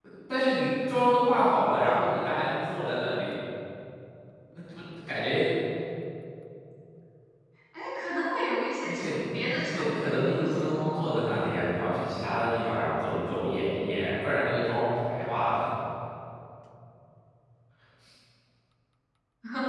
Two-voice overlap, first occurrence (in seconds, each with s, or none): 8.8 s